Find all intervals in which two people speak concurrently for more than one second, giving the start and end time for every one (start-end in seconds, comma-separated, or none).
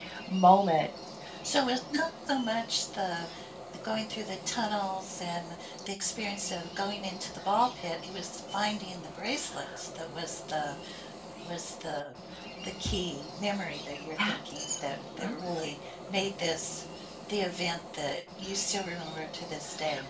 14.2-15.7